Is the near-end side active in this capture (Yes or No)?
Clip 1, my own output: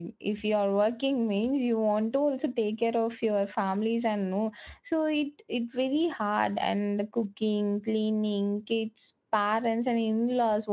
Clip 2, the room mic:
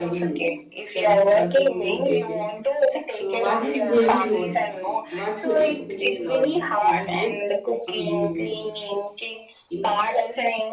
Yes